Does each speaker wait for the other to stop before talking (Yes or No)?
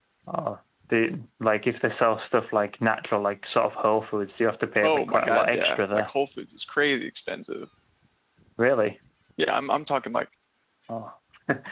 No